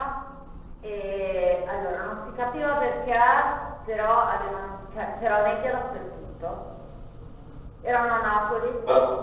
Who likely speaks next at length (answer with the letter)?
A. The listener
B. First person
B